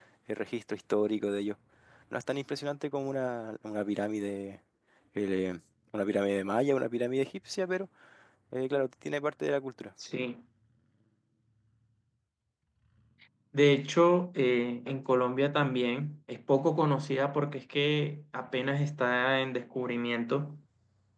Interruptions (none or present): none